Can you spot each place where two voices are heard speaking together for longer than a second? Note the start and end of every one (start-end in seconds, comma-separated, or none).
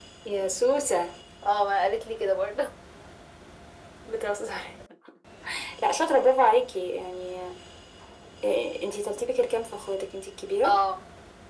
none